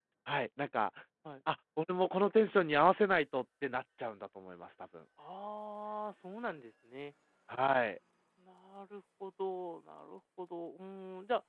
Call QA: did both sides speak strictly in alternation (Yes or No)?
Yes